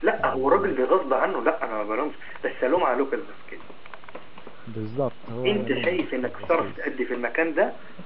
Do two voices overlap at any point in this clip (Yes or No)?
Yes